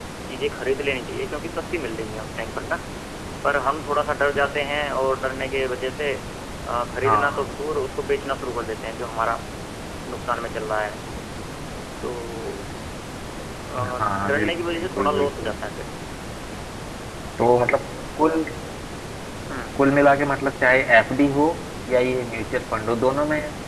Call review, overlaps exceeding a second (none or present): present